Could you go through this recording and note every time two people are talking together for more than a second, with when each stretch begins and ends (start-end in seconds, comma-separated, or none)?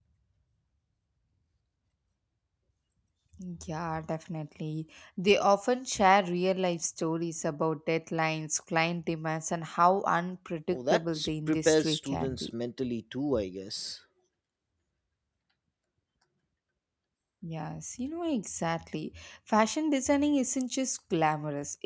10.7-12.5